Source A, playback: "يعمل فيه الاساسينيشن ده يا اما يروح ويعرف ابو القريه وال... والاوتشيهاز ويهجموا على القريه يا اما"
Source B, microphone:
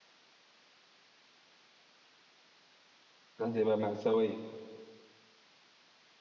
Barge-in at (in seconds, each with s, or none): 3.4 s